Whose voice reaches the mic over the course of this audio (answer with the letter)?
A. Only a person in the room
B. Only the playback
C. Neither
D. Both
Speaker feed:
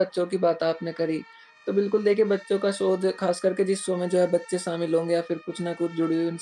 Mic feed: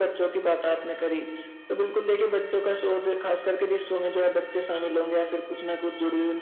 B